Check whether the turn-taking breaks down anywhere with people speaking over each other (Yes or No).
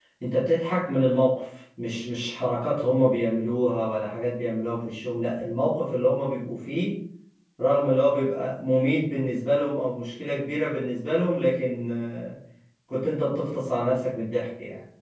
No